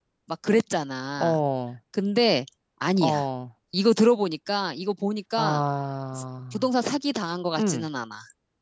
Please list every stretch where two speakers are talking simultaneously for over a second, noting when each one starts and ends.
none

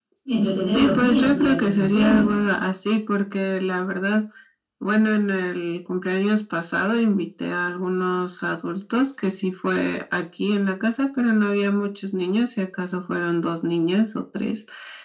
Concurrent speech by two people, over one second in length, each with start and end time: 0.7-2.3

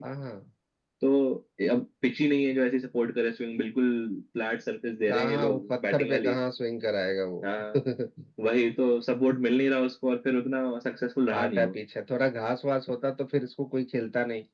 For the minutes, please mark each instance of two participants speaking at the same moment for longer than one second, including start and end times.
5.1-6.4

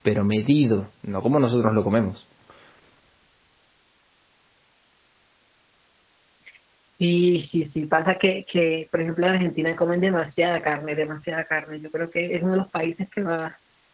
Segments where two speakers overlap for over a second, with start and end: none

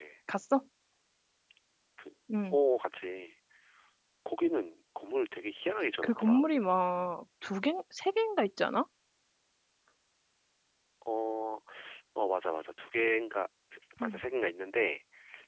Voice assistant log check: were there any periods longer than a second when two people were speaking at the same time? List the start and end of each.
none

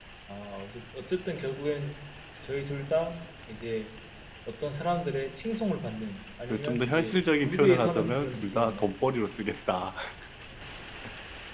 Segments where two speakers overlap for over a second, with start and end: 6.6-8.8

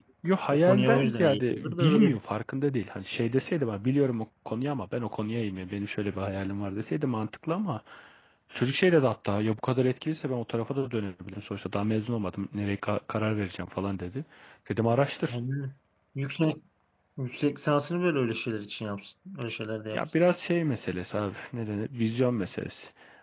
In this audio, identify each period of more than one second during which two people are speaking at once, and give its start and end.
0.5-2.2

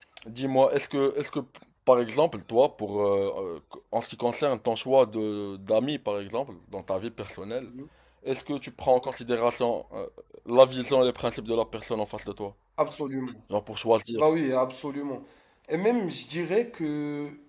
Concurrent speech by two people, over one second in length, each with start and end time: none

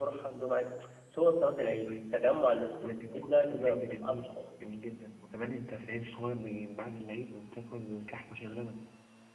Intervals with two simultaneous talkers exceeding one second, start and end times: 2.8-4.3

